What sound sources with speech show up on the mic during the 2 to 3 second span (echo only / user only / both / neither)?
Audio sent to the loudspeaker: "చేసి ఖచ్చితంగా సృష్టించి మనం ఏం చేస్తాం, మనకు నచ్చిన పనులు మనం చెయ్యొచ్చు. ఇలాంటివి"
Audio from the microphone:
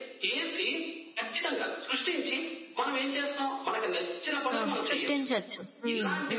echo only